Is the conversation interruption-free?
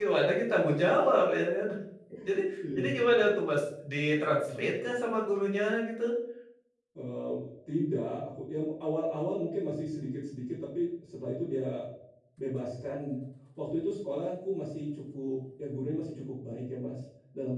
Yes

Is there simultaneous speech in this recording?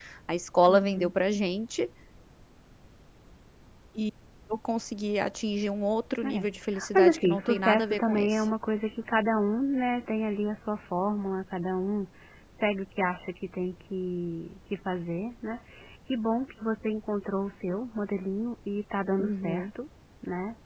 Yes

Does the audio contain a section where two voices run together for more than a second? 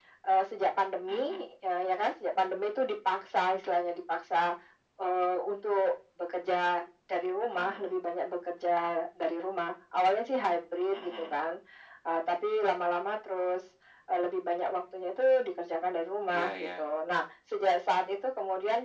No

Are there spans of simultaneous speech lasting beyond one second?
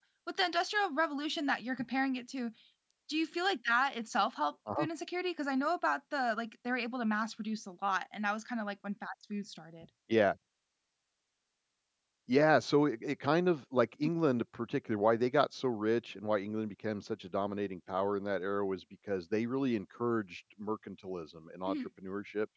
No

